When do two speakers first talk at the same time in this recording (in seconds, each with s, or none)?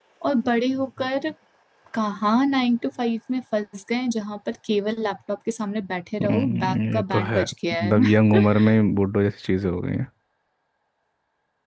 6.2 s